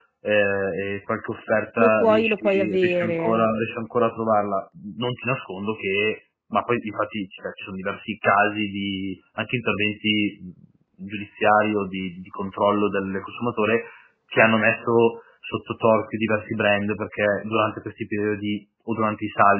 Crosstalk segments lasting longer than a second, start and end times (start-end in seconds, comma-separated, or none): 1.8-3.5